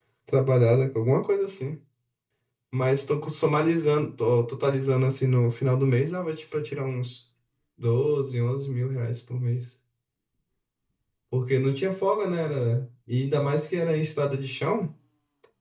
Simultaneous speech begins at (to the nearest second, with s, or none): none